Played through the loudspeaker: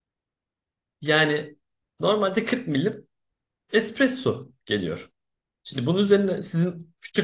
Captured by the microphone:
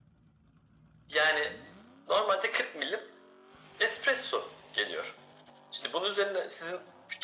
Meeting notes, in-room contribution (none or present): none